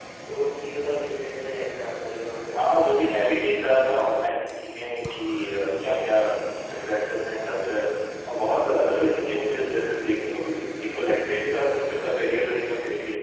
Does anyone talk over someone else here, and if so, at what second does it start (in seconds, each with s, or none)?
none